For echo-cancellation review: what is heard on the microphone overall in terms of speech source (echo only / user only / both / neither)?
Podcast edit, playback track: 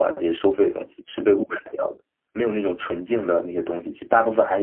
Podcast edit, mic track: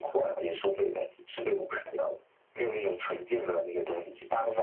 echo only